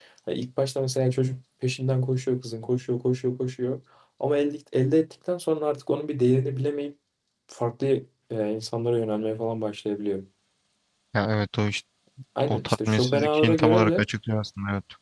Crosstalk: present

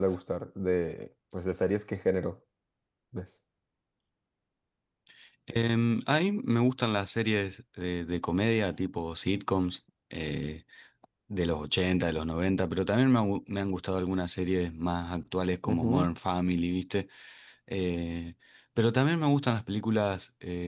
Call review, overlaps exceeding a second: none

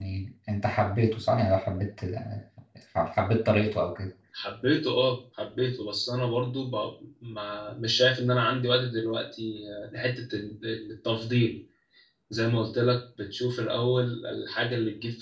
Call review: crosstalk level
none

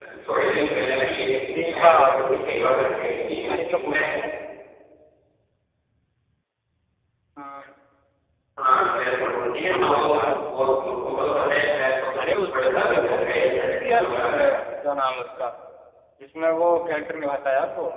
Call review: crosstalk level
present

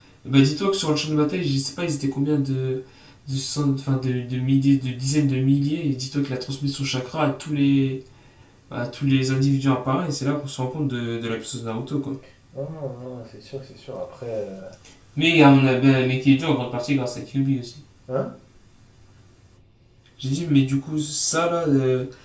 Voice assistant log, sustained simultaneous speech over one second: none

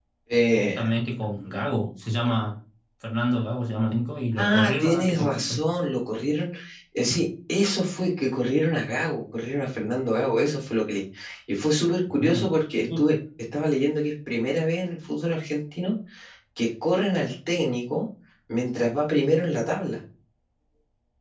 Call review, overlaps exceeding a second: present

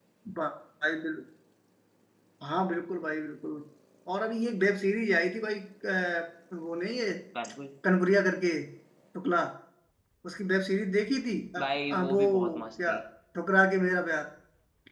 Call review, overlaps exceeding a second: present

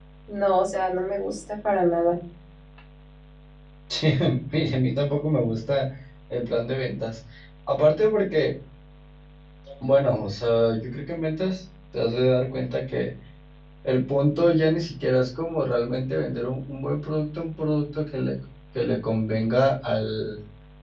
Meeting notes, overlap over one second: none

